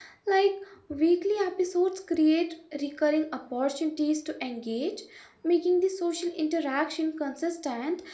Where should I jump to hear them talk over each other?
none

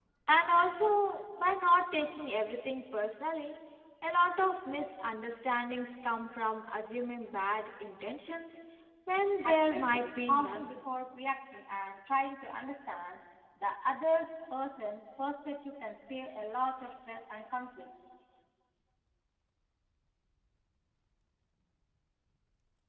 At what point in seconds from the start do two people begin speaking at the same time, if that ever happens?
9 s

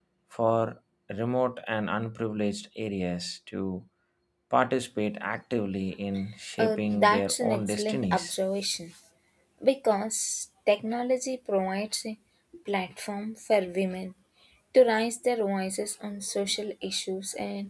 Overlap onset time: 7 s

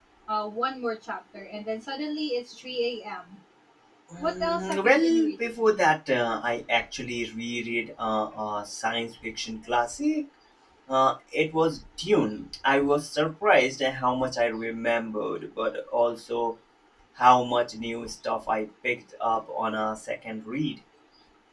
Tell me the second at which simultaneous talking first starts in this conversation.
4 s

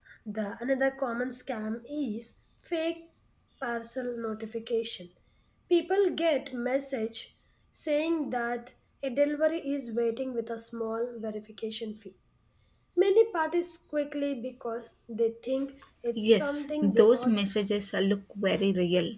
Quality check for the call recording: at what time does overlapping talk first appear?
16 s

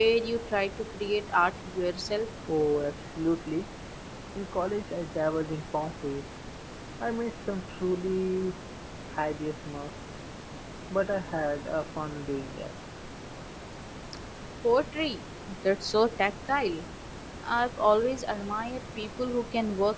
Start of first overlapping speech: none

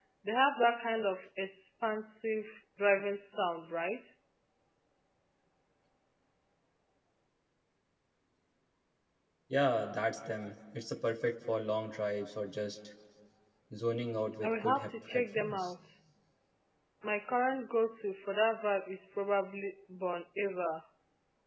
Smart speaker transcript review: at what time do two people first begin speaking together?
14 s

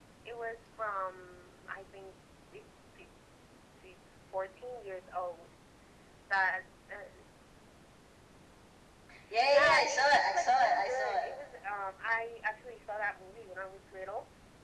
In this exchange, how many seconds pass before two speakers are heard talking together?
9 s

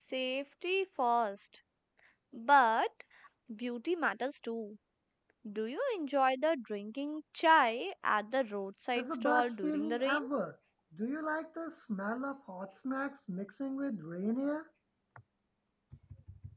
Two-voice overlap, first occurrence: 9 s

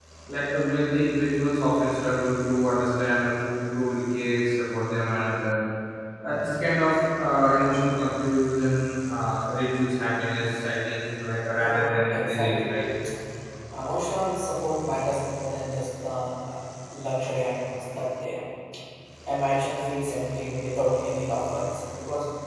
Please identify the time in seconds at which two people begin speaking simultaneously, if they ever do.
12 s

